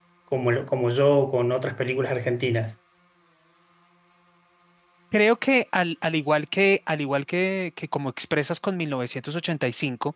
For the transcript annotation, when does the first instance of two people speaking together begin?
none

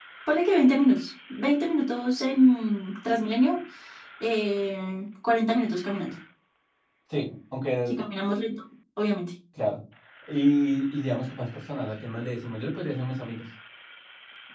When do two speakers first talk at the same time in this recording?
none

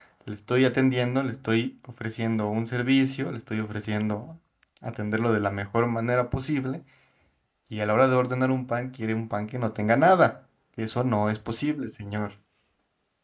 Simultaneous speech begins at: none

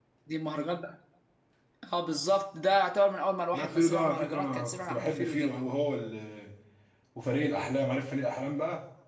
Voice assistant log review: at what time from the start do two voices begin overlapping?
3.5 s

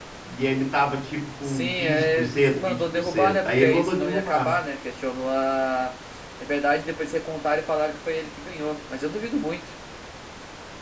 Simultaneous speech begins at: 1.4 s

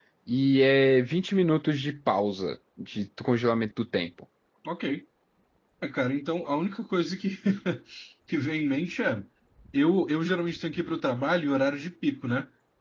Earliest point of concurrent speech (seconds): none

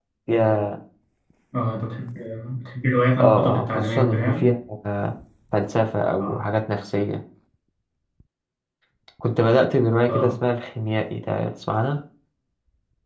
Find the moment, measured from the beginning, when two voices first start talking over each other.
3.2 s

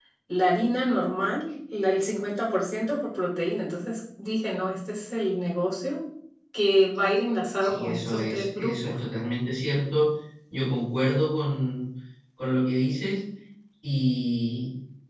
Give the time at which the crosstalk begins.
7.6 s

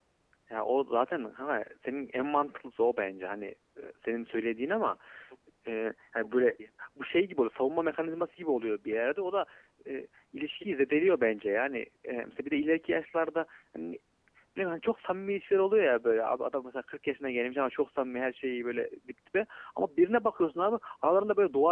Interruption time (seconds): none

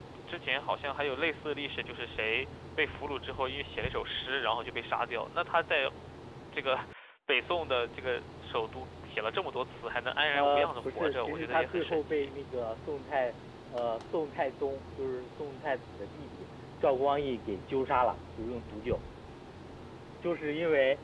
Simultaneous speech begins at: 10.3 s

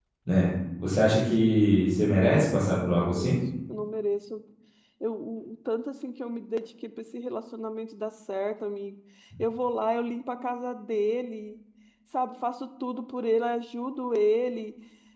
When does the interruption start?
2.0 s

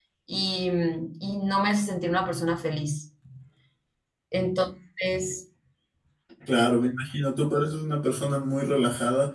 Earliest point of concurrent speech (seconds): none

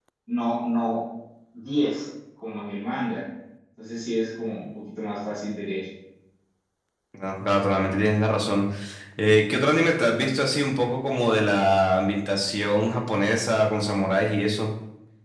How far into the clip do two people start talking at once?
none

